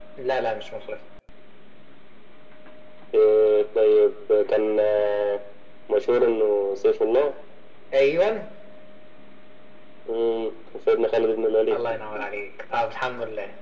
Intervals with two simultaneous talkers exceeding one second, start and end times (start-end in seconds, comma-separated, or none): none